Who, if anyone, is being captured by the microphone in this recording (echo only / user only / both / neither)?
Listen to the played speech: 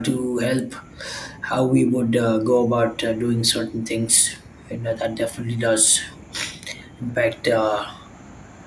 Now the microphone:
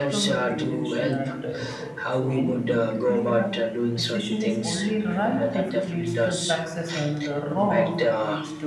both